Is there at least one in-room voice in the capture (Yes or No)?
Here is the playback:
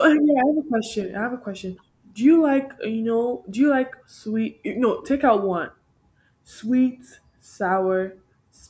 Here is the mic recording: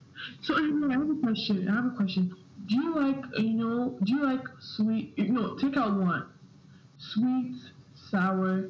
No